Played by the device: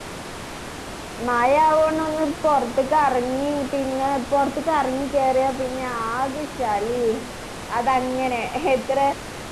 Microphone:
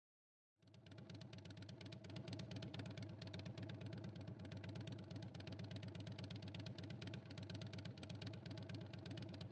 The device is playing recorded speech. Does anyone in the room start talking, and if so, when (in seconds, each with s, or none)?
none